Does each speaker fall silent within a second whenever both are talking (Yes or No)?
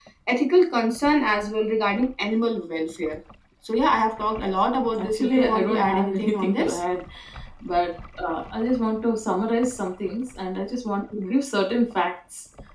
No